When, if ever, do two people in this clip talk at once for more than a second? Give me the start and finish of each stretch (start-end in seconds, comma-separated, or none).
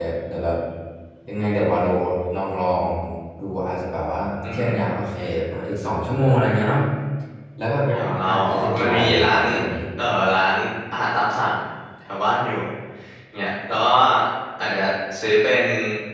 7.9-9.4